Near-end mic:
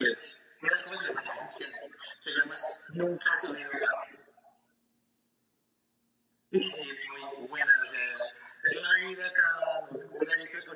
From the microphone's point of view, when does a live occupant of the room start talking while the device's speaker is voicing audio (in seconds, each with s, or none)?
none